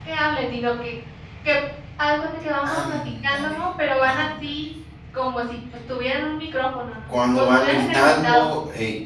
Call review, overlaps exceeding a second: present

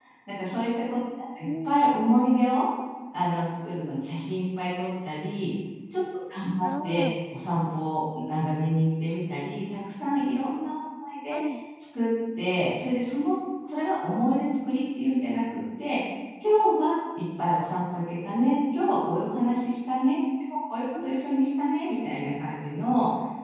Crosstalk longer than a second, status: none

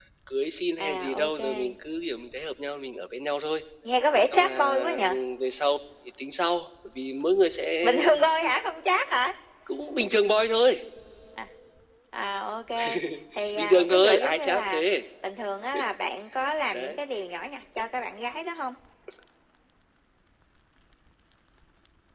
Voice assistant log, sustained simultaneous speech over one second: present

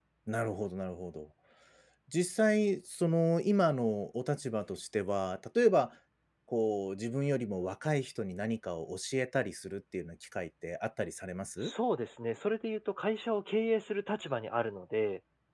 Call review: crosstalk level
none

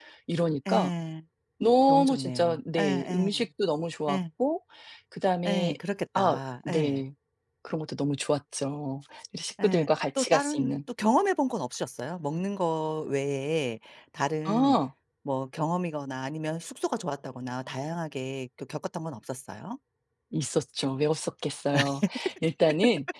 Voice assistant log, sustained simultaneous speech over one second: present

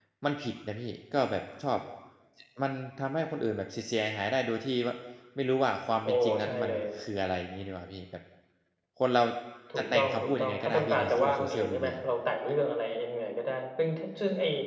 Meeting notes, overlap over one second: present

